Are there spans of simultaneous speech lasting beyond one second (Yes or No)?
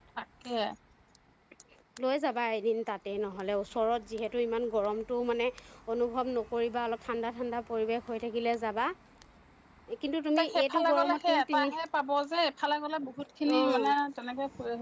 Yes